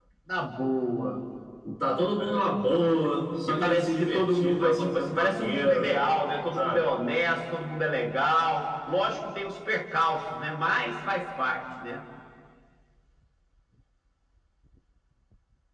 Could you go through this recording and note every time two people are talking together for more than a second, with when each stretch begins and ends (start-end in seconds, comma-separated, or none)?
3.5-5.9